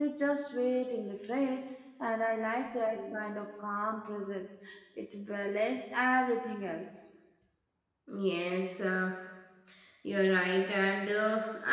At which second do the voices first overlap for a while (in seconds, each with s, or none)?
none